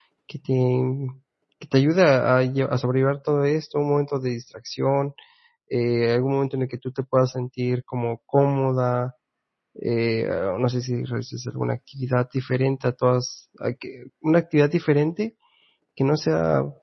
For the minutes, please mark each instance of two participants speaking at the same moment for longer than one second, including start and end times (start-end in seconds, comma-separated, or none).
none